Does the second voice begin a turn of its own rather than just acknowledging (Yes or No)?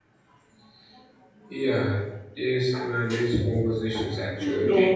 Yes